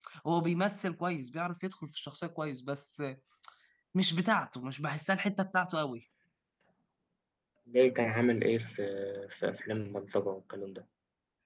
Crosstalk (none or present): none